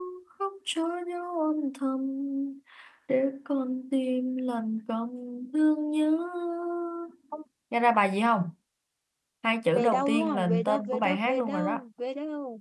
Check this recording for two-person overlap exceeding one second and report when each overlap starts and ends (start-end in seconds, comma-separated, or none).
9.7-11.8